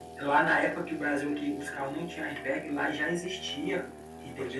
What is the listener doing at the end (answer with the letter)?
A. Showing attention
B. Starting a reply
A